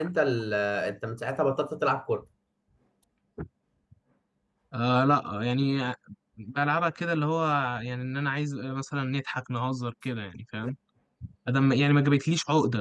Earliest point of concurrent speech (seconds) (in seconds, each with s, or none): none